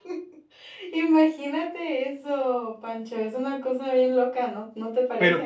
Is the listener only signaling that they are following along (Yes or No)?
No